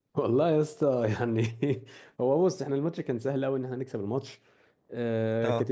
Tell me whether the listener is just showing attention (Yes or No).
Yes